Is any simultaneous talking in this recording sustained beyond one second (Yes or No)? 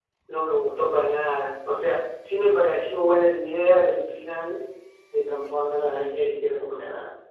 No